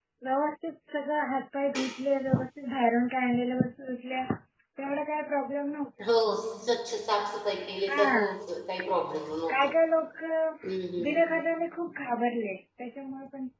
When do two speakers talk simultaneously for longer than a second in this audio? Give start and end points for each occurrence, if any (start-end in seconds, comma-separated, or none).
none